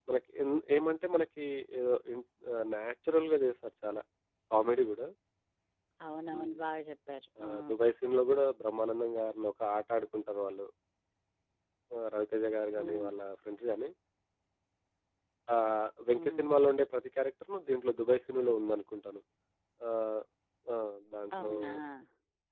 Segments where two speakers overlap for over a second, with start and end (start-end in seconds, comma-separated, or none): none